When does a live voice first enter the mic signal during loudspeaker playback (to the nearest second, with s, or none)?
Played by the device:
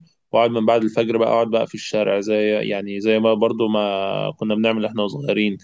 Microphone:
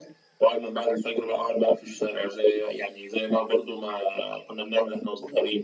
none